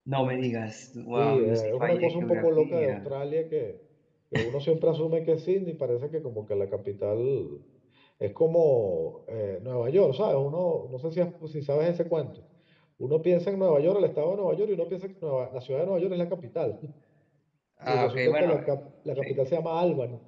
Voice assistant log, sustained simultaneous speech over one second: present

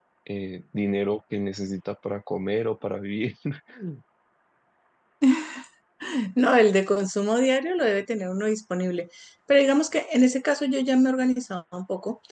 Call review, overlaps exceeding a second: none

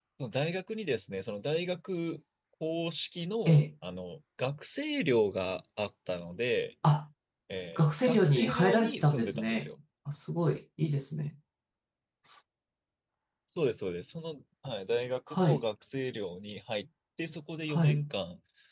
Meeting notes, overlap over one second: present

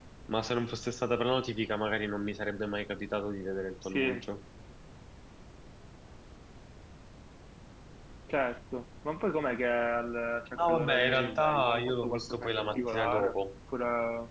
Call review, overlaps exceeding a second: present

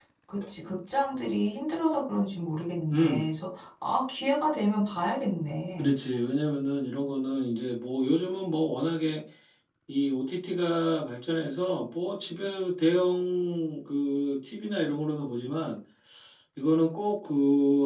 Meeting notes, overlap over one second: none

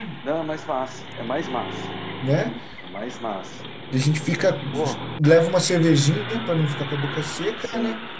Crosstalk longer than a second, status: none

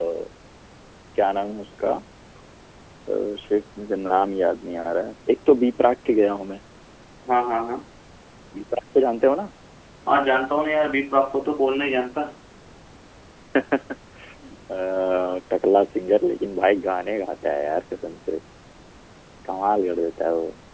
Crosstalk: none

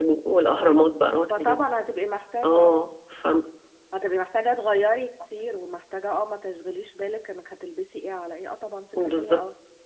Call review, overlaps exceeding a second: none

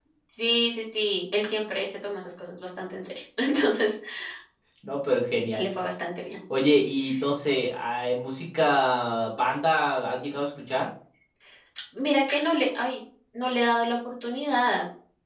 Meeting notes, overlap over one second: none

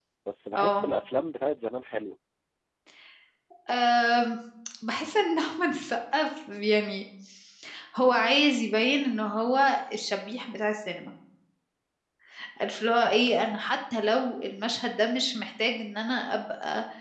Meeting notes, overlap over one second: none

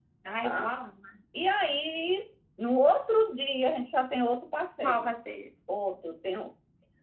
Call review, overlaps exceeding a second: none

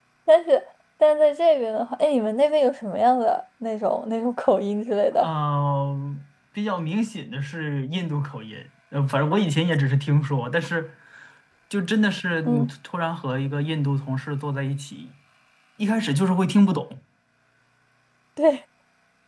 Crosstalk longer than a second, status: none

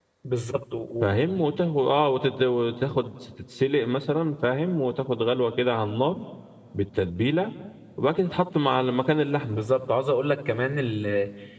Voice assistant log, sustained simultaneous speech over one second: none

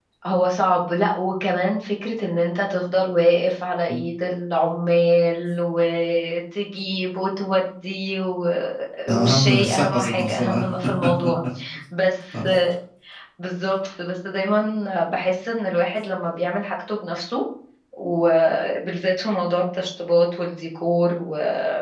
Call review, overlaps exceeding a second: present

